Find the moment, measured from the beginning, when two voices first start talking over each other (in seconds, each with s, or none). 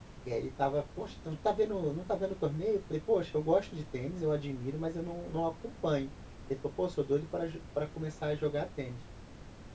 none